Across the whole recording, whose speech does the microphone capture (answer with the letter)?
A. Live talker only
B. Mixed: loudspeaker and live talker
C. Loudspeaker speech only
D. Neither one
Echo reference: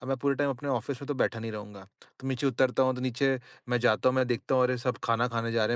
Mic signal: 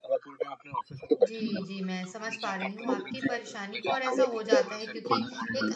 B